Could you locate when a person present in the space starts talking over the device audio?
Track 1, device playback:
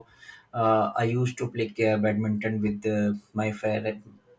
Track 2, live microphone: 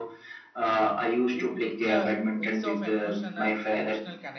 1.3 s

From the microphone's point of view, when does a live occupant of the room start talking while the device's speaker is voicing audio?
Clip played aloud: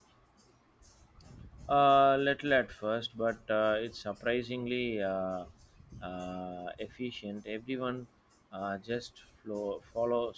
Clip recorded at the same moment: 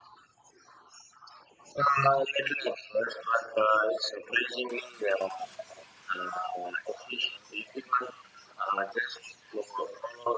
none

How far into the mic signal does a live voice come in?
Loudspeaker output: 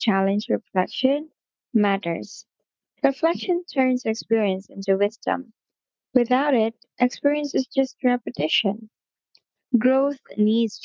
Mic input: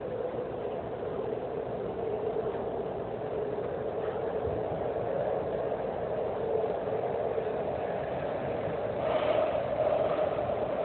none

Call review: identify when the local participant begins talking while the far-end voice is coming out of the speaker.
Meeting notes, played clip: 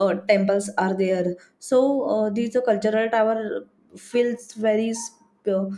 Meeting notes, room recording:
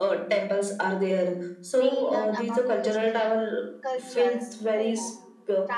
1.8 s

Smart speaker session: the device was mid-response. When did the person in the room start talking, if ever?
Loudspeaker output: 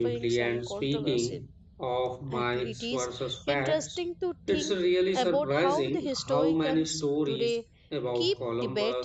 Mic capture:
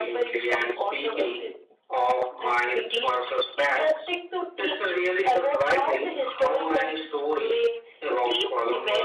none

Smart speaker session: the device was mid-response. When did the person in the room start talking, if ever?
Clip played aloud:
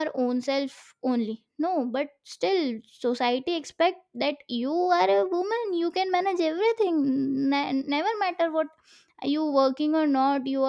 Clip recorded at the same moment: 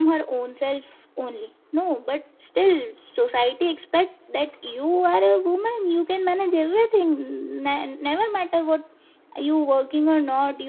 none

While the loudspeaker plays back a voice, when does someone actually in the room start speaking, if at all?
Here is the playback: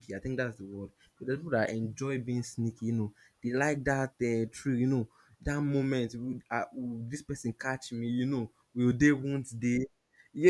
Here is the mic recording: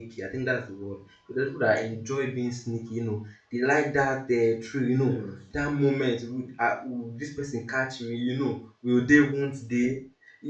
4.9 s

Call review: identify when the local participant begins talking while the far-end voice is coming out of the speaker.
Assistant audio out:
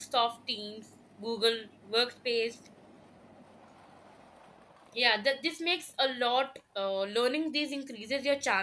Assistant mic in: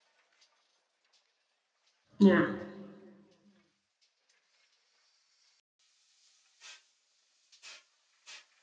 2.2 s

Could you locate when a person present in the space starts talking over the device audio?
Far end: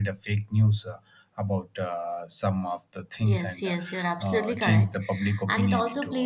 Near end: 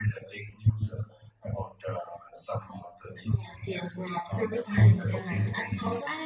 4.6 s

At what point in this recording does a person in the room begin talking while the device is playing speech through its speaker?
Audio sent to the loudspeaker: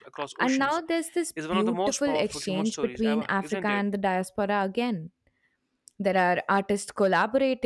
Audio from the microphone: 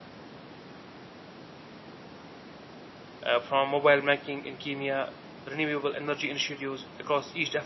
3.2 s

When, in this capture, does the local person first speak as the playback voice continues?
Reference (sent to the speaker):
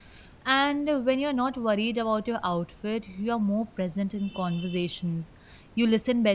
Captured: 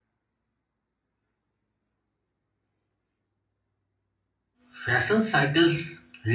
4.7 s

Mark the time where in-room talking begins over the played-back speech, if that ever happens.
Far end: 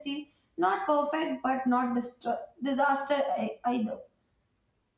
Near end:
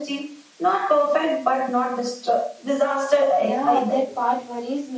3.3 s

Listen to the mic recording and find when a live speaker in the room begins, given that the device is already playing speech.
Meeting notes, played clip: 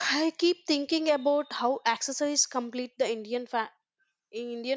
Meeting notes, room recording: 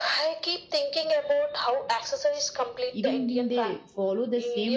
2.9 s

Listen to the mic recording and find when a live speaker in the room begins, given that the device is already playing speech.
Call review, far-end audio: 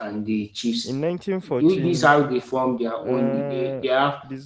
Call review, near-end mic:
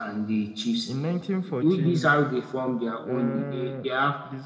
none

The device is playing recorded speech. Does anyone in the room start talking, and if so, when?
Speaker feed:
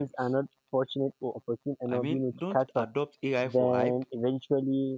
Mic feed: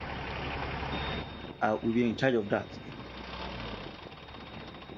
1.6 s

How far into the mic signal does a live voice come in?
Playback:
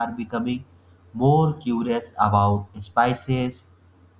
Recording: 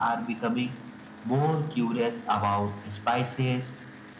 none

